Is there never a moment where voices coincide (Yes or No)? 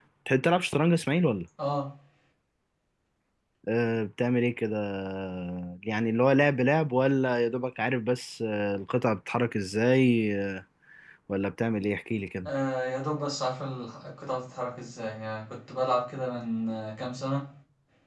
Yes